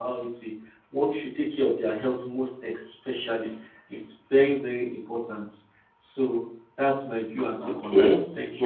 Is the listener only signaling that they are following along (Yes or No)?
No